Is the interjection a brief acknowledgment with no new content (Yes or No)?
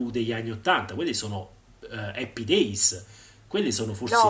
No